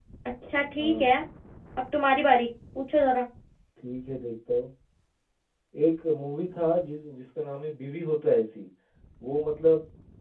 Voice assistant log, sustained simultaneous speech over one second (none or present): none